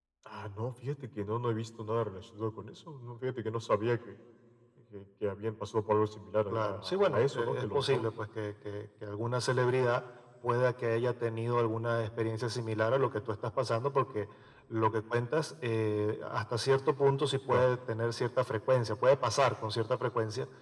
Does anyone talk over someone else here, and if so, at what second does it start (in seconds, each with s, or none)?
6.5 s